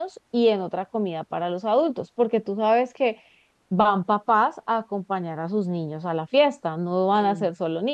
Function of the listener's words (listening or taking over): listening